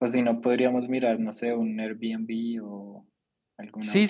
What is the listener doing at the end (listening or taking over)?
taking over